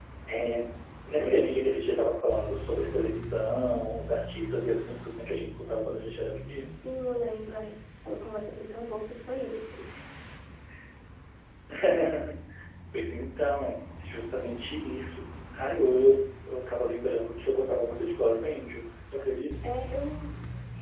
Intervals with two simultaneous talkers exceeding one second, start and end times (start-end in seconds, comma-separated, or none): none